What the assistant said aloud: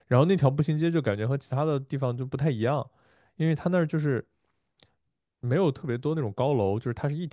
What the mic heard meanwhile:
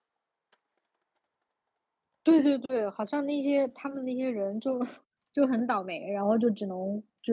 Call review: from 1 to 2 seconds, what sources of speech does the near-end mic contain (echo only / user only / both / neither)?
neither